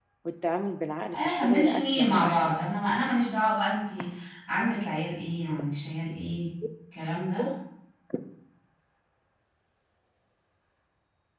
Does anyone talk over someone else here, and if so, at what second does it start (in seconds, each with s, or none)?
1.1 s